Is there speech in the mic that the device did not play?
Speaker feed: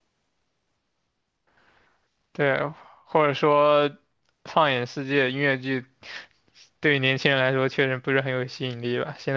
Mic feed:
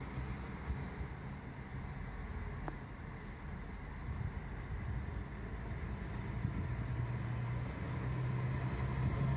No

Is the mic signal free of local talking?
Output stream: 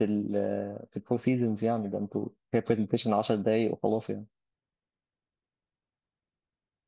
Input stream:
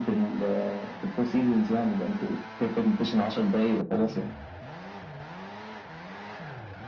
Yes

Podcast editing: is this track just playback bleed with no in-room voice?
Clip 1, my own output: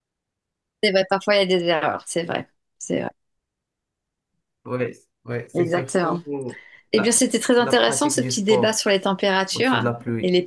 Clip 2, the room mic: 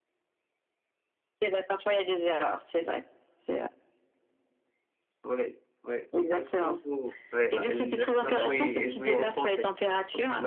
No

